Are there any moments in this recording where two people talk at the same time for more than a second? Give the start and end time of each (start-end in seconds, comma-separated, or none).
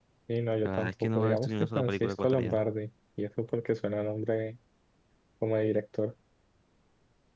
0.6-2.6